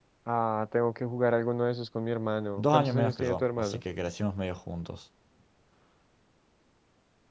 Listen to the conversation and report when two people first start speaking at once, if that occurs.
2.6 s

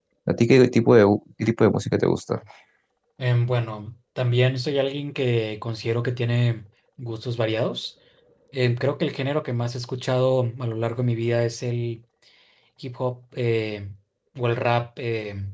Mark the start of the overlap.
none

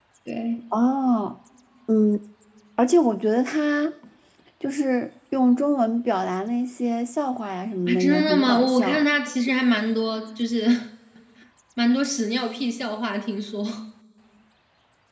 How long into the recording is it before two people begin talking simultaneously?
7.9 s

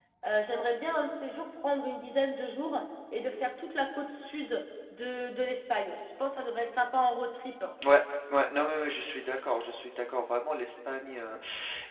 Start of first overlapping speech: none

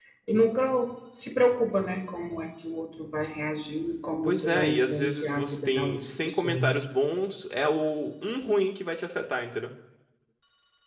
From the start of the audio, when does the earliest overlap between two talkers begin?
4.2 s

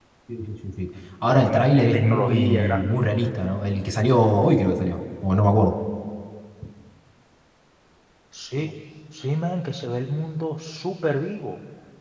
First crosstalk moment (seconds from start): 1.3 s

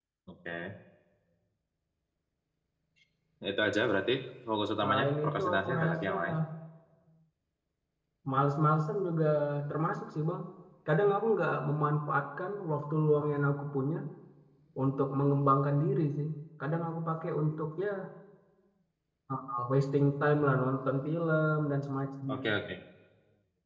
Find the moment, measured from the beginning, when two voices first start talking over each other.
4.8 s

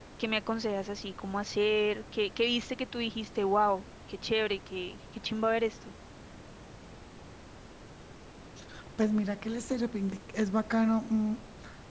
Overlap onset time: none

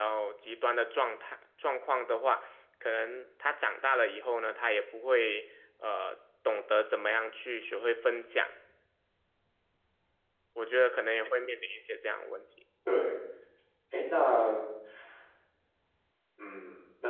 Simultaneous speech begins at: none

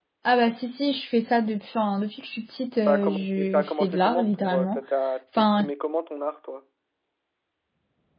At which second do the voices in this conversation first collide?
2.8 s

